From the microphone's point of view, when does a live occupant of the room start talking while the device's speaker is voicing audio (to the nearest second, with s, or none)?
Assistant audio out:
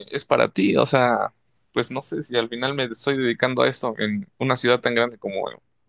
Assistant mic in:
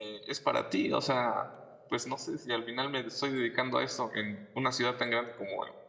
none